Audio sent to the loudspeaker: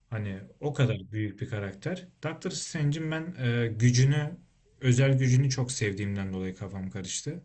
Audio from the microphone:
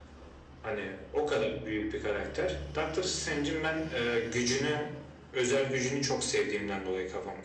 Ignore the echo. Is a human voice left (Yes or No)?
No